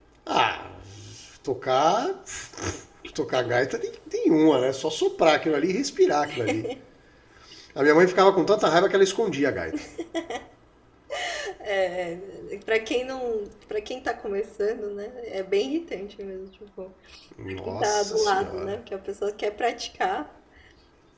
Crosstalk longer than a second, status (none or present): present